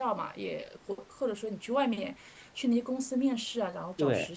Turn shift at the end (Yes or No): Yes